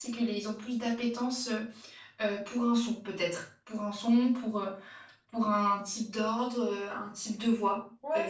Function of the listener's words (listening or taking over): taking over